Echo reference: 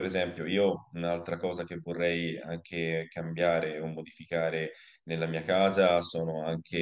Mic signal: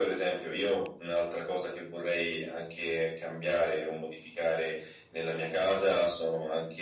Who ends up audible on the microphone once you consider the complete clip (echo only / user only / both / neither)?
echo only